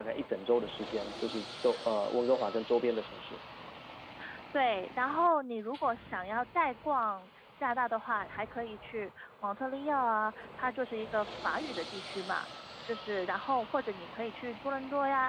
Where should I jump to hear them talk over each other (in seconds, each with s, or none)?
none